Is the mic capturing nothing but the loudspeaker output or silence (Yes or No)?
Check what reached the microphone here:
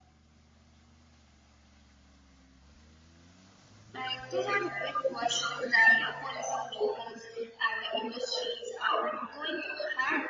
Yes